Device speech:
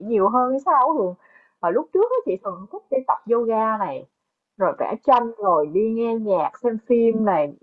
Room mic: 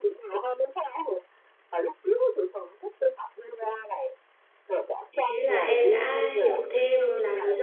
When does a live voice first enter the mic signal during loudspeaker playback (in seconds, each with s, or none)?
5.1 s